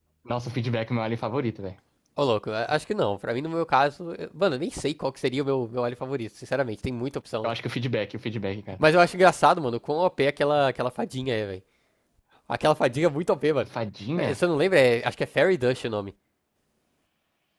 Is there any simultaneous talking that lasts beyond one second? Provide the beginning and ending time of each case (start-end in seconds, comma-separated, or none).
none